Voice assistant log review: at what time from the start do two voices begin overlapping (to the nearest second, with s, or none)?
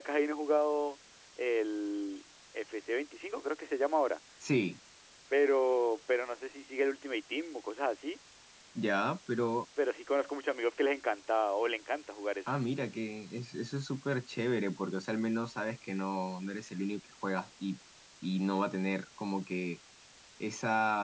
none